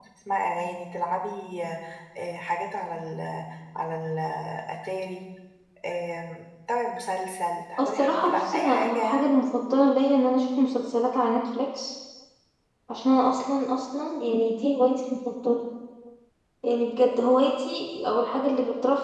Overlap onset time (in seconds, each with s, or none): 7.8 s